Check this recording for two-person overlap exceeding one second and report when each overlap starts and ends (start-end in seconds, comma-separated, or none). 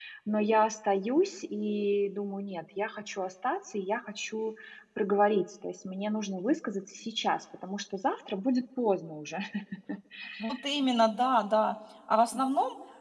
none